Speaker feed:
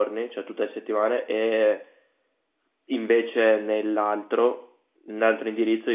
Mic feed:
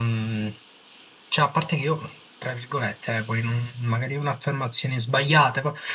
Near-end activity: present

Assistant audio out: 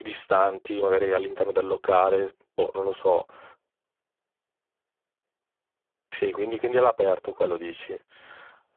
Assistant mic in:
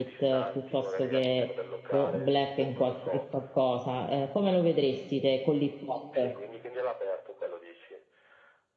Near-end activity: present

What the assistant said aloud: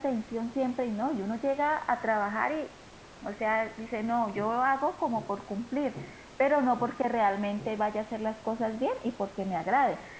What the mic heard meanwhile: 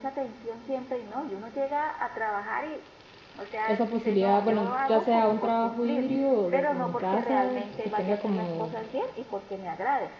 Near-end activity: present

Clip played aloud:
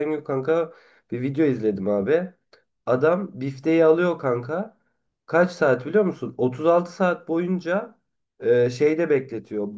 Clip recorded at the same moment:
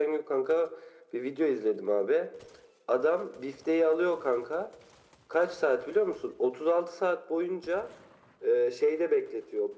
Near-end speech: none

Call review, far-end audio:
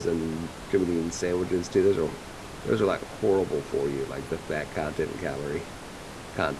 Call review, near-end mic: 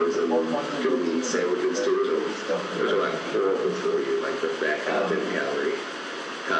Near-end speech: present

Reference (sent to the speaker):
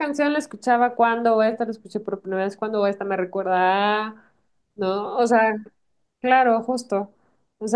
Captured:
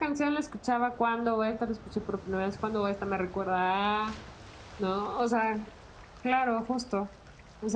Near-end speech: none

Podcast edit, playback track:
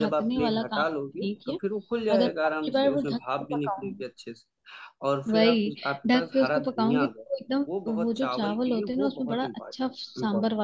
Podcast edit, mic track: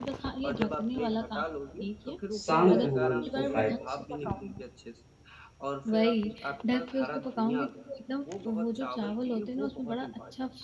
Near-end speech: present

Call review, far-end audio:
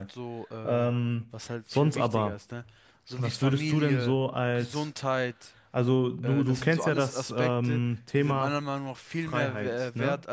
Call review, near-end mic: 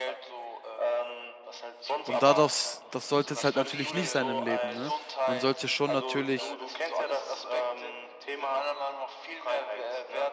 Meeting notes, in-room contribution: present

